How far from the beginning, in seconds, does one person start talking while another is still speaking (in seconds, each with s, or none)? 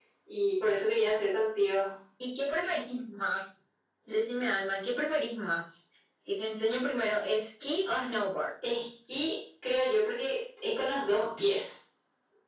none